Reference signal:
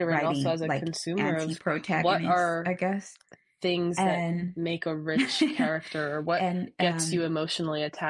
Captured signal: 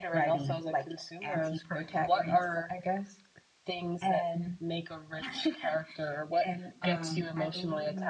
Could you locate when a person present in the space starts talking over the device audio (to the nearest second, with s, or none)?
7 s